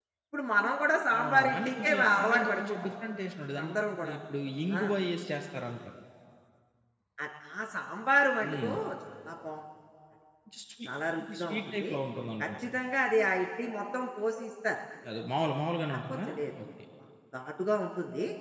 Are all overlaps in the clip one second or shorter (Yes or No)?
No